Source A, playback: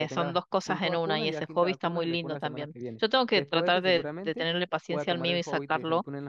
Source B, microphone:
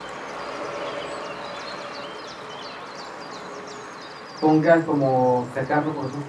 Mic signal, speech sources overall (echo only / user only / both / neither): user only